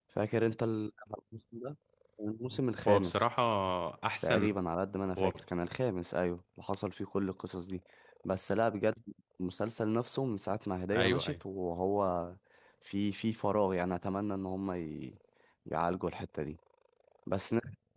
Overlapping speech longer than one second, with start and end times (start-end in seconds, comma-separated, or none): none